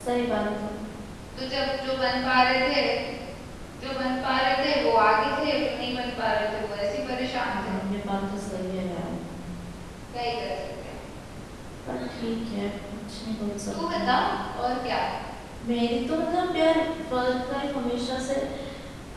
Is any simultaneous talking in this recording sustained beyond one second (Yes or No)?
No